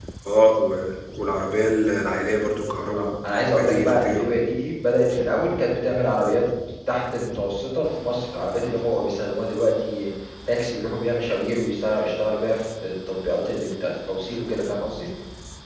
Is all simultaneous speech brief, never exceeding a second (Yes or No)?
No